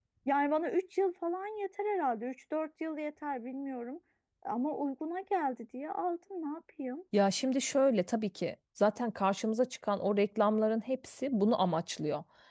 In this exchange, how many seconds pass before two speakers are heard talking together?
none

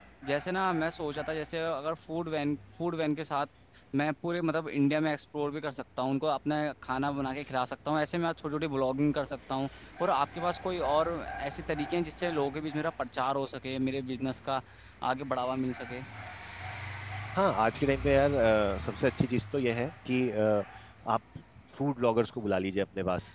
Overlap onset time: none

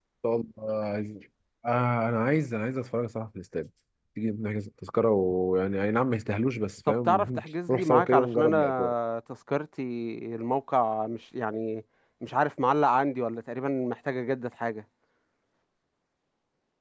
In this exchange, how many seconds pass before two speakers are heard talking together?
6.9 s

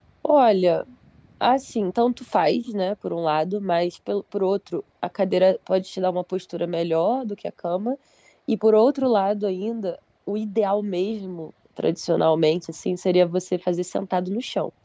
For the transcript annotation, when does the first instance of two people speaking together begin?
none

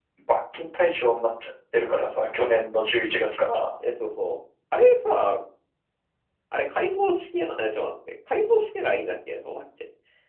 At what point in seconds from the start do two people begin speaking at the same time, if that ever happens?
none

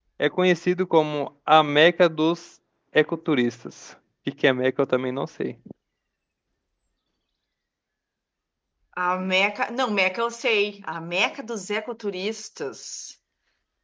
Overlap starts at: none

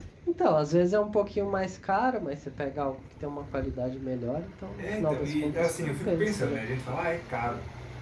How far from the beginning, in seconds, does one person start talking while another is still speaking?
4.8 s

